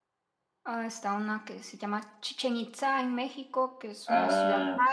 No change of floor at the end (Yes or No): No